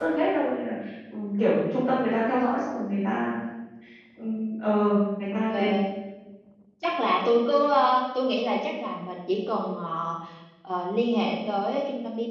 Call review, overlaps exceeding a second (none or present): none